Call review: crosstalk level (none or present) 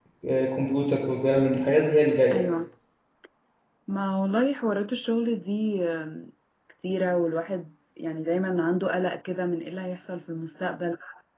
none